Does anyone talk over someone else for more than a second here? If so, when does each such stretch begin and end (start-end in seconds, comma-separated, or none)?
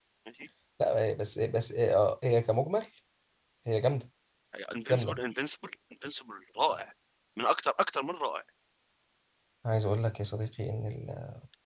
none